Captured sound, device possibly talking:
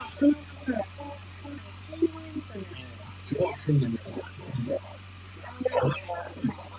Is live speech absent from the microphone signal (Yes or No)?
Yes